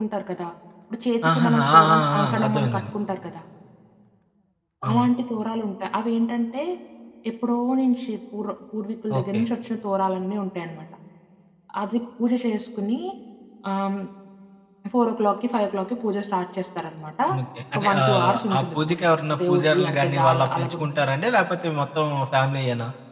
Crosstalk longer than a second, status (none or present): present